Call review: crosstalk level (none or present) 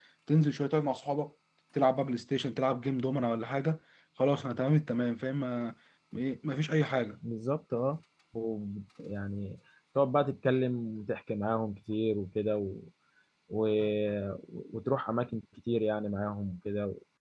none